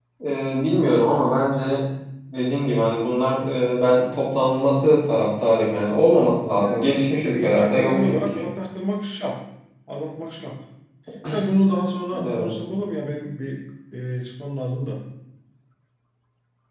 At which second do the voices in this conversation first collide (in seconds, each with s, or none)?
6.5 s